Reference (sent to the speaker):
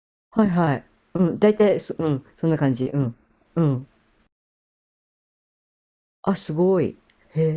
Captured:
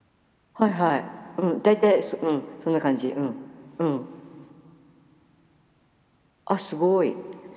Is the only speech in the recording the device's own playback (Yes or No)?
Yes